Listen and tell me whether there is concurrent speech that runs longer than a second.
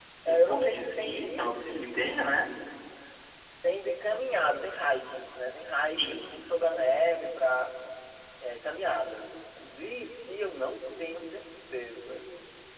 Yes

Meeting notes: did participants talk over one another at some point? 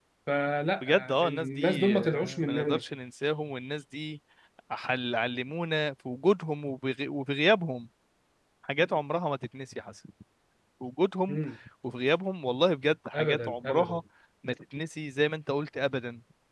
Yes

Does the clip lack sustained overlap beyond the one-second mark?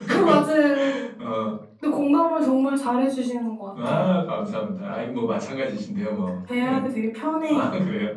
Yes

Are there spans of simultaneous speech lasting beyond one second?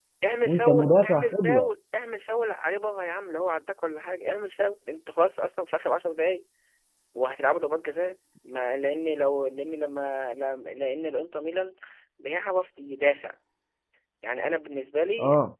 Yes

